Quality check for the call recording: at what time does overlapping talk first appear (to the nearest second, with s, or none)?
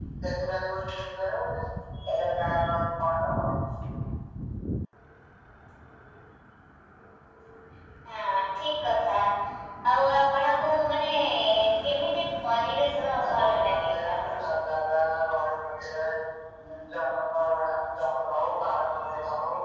13 s